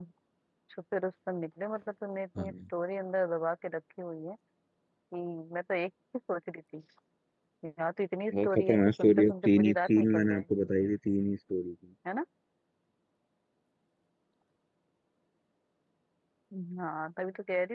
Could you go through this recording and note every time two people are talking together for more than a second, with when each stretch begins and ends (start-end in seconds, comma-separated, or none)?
8.4-10.4